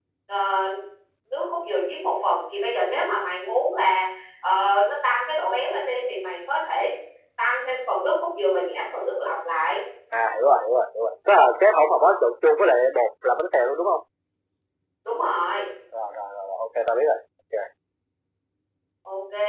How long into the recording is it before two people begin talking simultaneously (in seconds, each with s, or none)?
none